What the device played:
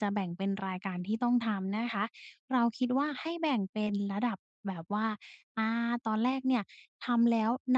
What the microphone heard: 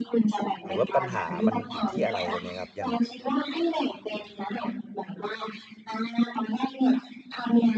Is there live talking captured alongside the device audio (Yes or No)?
Yes